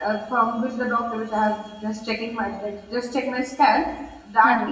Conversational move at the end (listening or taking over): listening